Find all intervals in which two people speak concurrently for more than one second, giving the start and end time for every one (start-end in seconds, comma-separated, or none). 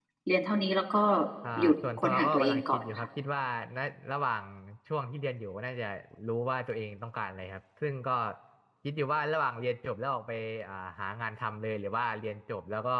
1.6-3.1